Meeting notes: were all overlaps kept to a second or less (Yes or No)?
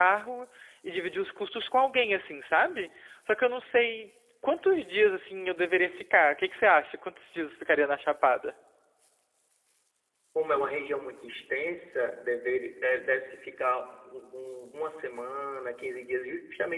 Yes